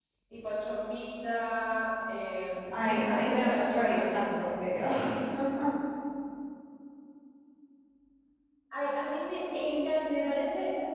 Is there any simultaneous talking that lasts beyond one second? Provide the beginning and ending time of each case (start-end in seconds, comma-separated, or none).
2.7-4.5